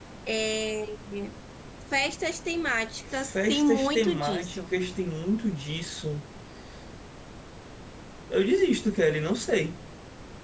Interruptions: present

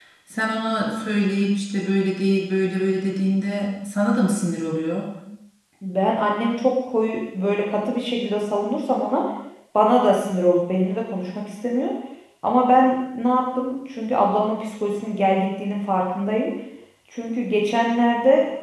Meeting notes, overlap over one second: none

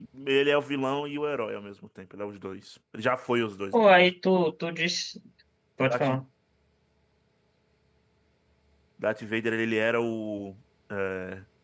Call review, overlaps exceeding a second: none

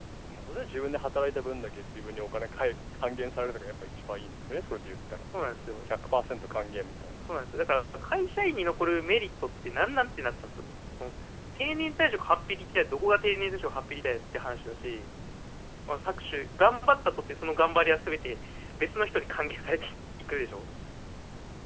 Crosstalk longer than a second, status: none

